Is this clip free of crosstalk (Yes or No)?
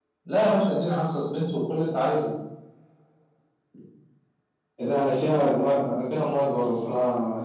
Yes